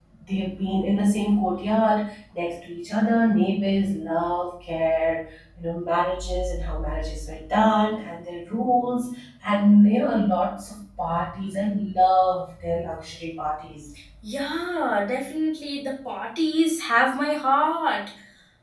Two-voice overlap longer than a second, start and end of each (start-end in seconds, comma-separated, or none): none